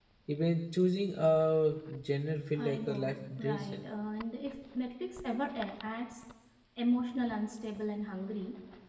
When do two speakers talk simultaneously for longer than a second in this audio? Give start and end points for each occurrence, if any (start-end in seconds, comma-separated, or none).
2.6-3.8